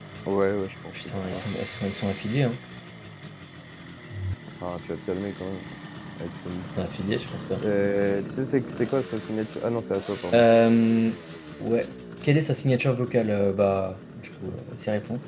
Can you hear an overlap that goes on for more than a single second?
No

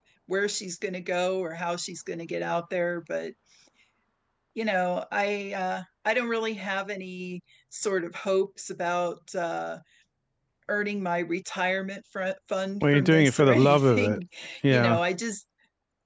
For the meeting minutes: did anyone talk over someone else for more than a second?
Yes, from 12.8 s

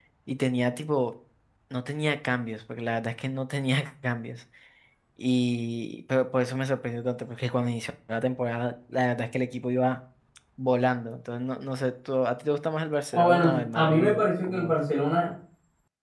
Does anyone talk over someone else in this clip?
Yes, from 13.1 s

